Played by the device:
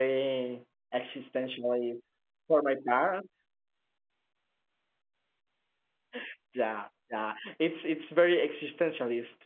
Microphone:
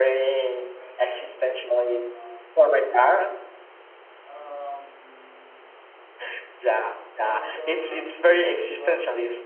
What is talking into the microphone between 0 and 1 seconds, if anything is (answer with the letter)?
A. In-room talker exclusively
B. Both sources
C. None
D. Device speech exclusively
B